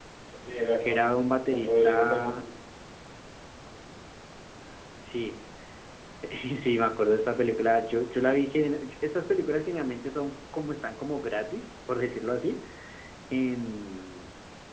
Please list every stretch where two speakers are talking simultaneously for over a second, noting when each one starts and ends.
0.8-2.4

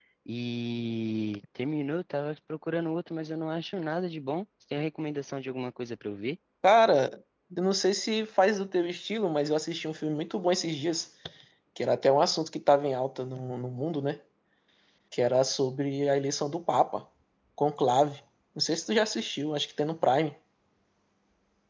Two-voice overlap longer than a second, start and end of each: none

